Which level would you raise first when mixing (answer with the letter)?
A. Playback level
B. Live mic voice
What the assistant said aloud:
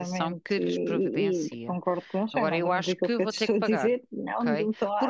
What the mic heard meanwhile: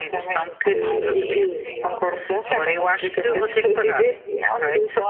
B